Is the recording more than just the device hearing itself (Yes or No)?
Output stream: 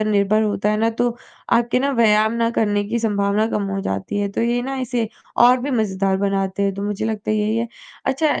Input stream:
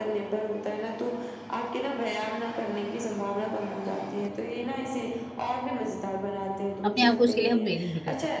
Yes